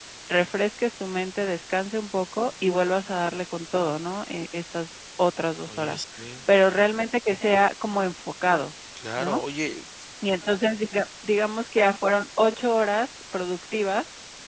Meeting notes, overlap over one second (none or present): none